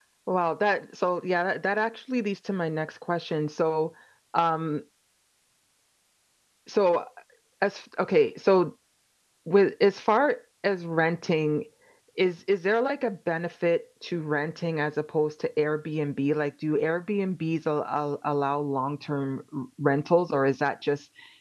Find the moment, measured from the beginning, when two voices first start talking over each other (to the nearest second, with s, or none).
none